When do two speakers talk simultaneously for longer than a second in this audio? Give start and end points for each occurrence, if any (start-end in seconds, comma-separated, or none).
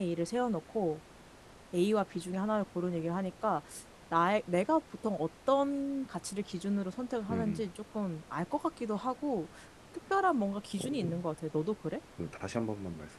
none